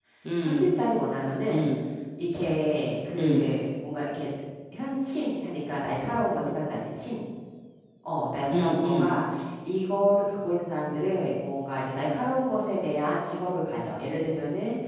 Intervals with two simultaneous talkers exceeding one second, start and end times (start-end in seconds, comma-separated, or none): none